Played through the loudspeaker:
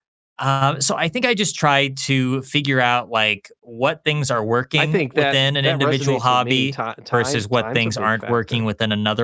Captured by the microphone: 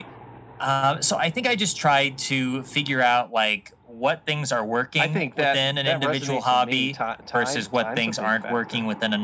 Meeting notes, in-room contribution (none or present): none